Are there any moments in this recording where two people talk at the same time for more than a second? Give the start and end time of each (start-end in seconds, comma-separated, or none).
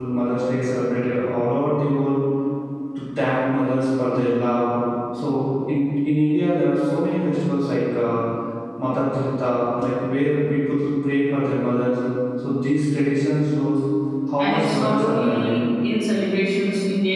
14.4-15.6